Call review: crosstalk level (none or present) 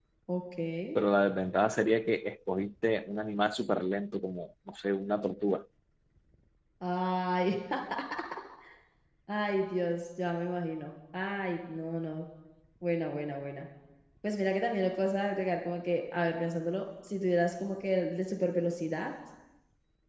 none